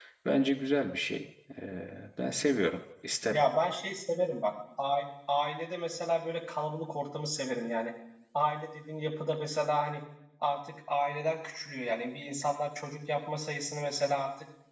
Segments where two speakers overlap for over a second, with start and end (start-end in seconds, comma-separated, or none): none